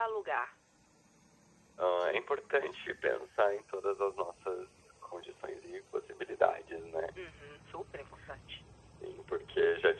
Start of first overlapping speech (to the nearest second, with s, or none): none